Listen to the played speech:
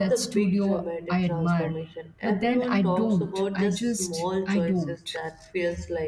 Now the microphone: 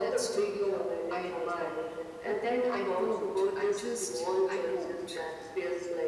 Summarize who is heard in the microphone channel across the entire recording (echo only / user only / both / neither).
echo only